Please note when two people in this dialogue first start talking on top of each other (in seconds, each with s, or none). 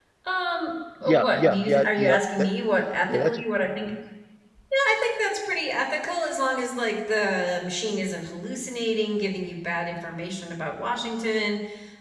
1.0 s